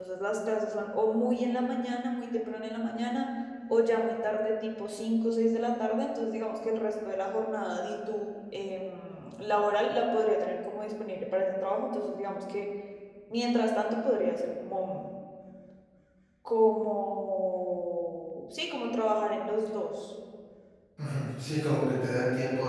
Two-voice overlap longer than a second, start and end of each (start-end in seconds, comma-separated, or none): none